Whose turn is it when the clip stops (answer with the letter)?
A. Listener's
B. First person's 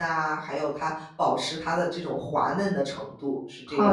A